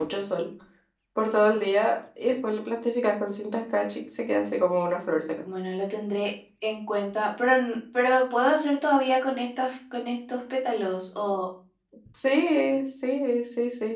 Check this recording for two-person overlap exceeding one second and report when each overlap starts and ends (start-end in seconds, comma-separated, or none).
none